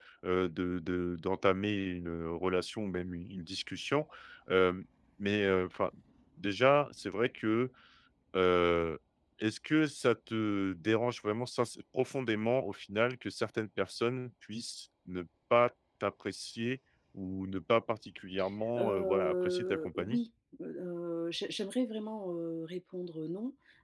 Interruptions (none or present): present